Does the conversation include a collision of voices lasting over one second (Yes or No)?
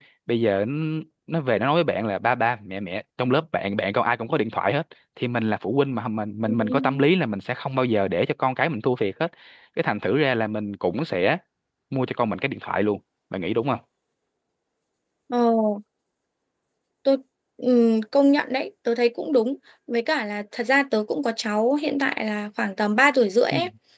No